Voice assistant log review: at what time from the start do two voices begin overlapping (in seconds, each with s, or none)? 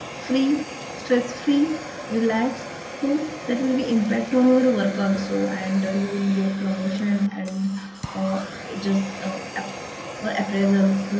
none